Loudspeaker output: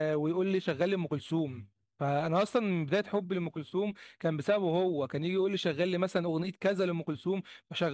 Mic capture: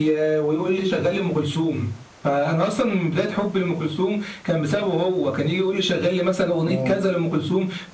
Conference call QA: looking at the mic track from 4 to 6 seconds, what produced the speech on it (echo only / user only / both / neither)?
echo only